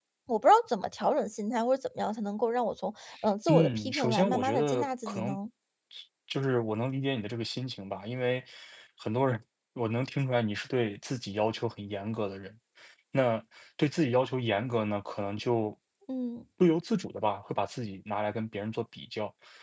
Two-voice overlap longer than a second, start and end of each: 3.5-5.4

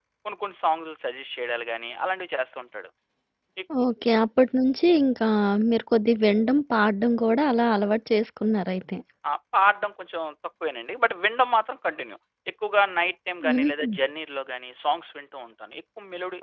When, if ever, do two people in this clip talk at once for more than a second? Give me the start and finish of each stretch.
none

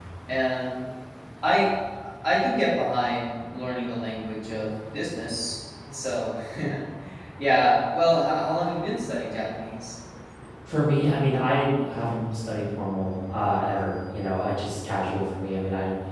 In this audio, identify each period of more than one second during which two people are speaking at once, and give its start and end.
none

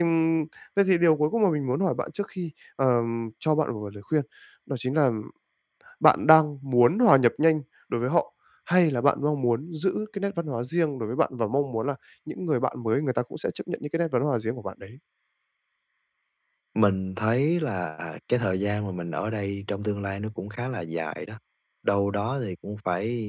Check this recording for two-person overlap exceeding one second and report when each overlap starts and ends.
none

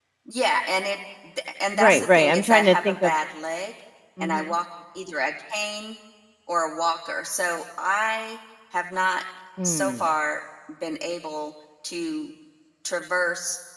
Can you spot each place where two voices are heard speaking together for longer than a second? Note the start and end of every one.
1.7-3.1

